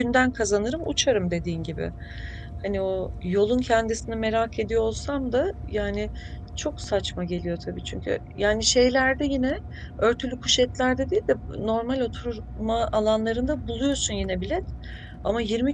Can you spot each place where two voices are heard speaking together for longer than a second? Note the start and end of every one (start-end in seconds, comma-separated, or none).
none